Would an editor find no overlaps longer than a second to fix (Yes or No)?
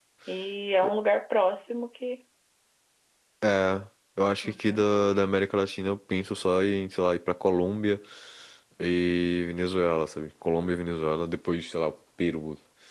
Yes